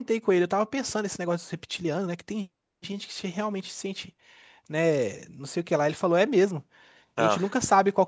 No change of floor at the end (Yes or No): Yes